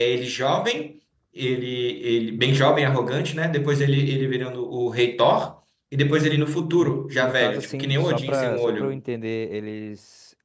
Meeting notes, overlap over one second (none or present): present